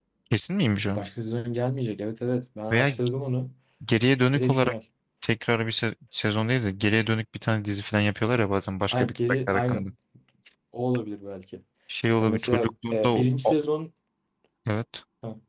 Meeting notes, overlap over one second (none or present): present